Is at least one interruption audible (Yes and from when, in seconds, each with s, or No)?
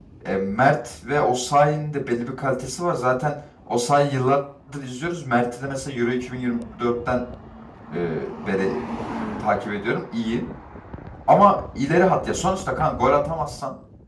No